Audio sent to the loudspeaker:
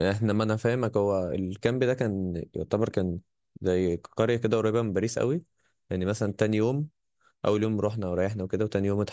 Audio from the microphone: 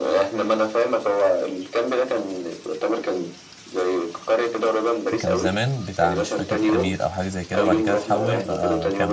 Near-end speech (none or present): present